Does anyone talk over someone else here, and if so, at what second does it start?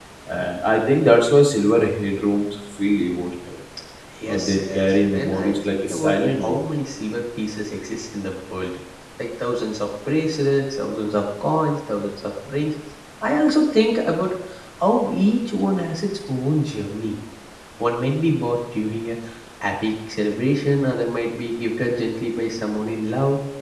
4.3 s

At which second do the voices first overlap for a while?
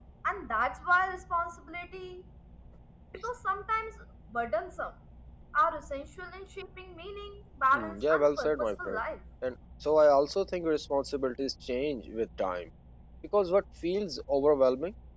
7.7 s

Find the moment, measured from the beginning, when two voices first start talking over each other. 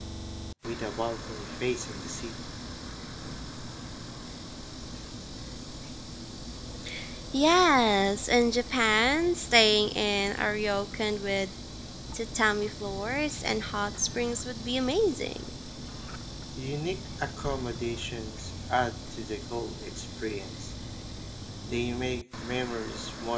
none

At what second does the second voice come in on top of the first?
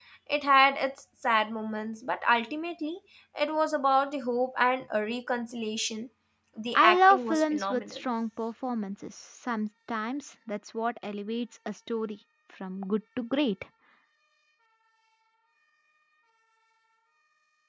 6.8 s

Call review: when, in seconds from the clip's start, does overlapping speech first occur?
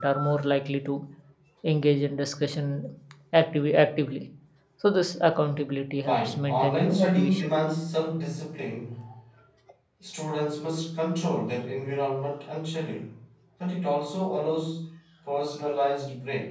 6.1 s

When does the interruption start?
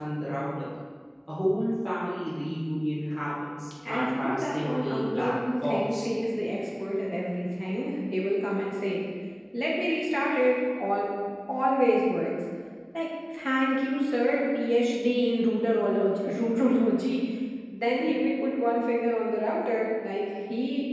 3.8 s

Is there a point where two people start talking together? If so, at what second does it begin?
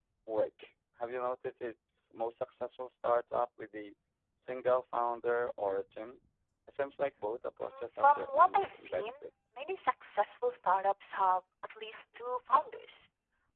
7.8 s

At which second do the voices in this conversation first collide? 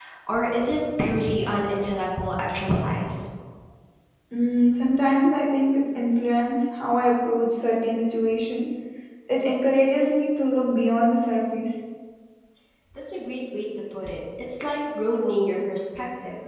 none

